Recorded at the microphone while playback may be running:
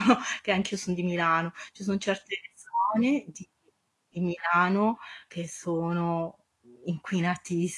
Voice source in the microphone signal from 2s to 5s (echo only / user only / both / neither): user only